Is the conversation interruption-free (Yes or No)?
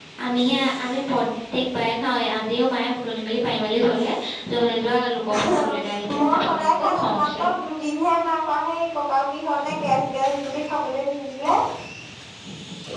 No